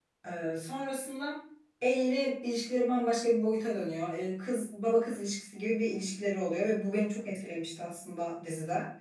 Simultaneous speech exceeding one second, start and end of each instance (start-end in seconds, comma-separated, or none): none